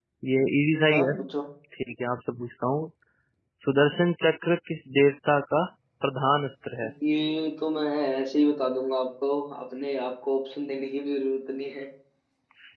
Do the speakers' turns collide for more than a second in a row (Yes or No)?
No